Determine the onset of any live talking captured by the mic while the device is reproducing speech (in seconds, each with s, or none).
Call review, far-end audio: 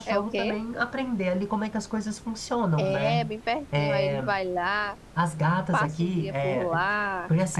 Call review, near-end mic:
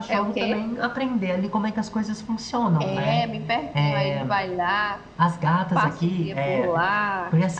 none